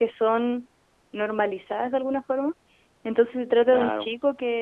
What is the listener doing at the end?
listening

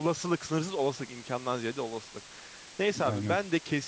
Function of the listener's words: listening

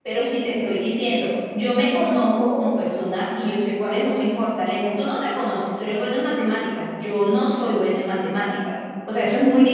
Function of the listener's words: listening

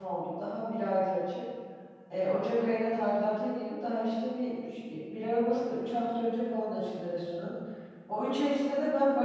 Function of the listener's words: listening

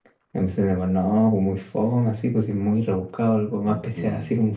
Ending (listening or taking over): listening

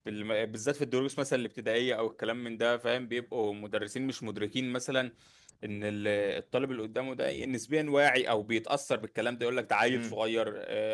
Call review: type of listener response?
listening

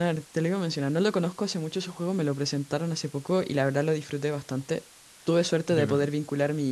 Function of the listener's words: listening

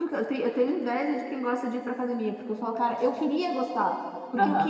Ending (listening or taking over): listening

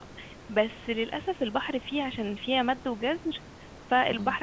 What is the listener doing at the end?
listening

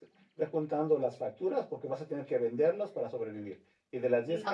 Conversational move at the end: listening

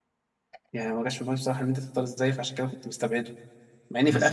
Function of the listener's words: taking over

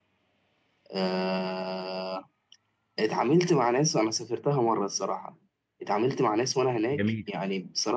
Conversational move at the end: listening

